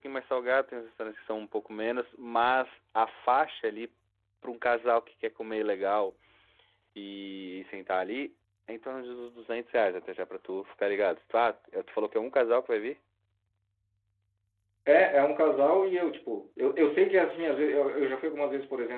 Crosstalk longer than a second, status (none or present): none